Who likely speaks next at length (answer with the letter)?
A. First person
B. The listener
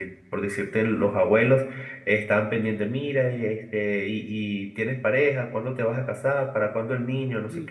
A